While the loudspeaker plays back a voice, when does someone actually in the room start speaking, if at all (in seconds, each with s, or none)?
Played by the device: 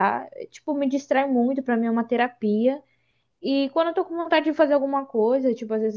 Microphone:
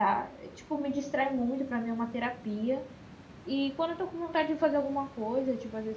none